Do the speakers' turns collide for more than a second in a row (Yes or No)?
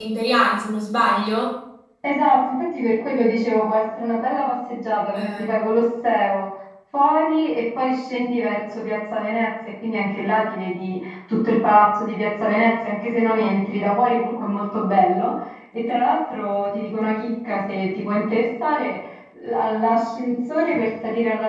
No